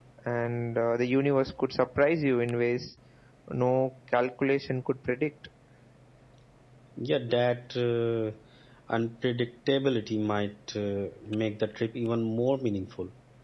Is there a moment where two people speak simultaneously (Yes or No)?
No